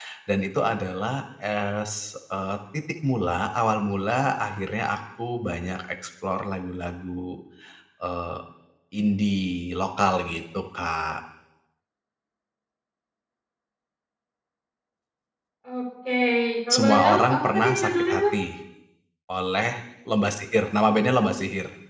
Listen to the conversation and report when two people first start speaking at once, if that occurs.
16.7 s

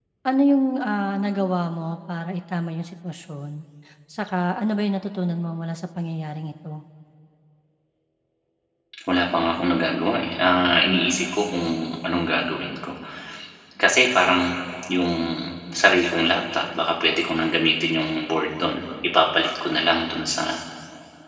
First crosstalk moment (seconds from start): none

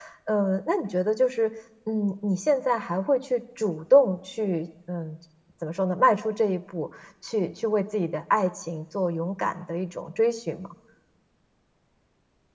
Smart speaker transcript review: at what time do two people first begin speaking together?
none

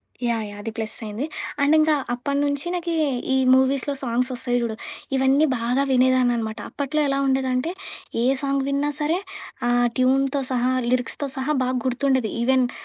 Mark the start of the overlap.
none

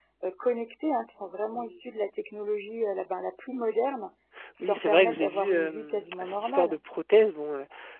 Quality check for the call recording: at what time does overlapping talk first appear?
4.6 s

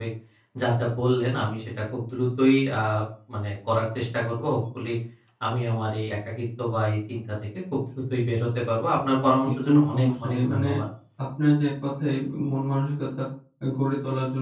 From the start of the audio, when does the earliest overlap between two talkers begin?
9.4 s

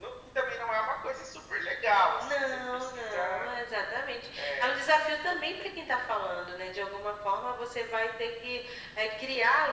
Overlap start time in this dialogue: 2.2 s

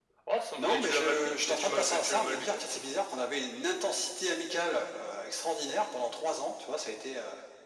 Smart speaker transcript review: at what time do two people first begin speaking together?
0.6 s

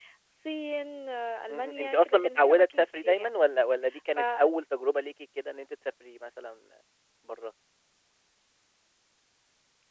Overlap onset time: 1.5 s

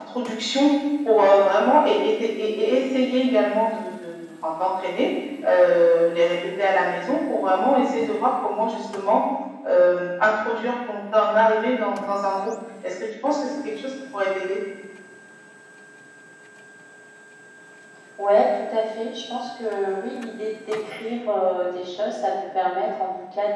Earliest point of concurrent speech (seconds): none

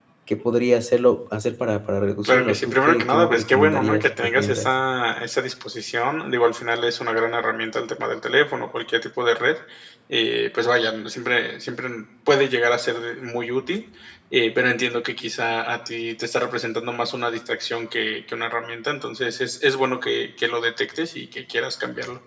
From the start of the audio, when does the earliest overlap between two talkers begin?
2.2 s

